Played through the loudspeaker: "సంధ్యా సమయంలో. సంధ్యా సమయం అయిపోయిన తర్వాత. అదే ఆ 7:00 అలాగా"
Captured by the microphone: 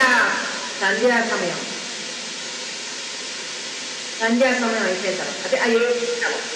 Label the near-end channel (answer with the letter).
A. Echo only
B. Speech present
A